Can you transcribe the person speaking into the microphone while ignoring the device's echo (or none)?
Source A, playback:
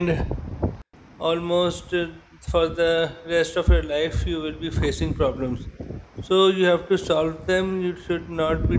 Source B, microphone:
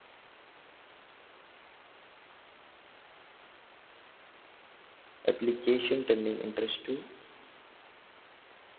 application, turning interest to